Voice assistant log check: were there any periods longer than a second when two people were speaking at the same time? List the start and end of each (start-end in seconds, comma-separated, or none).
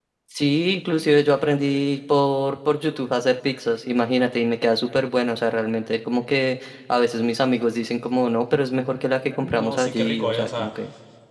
9.2-10.7